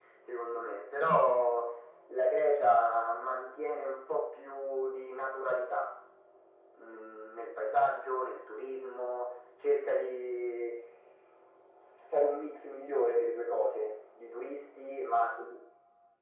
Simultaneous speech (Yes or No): No